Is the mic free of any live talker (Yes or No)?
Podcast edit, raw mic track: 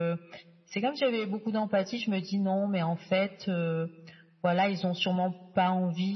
Yes